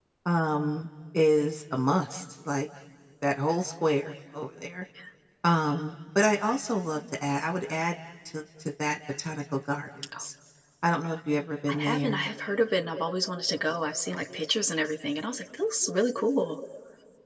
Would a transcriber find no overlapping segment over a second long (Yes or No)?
Yes